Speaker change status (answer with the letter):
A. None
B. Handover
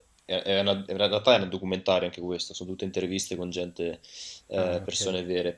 A